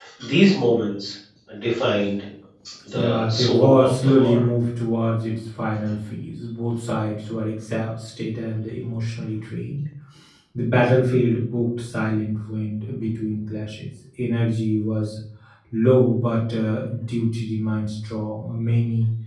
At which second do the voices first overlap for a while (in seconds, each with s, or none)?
2.9 s